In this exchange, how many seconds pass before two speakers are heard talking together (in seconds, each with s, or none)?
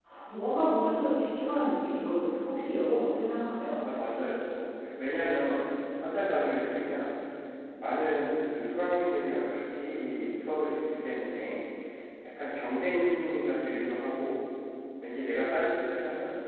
none